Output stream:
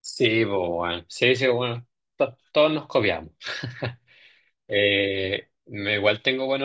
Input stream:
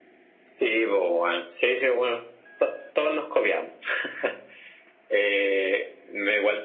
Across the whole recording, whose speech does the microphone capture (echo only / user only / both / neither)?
echo only